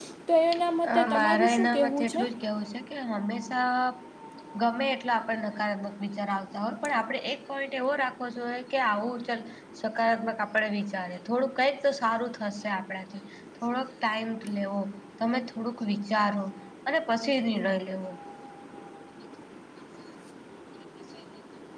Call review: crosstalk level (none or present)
present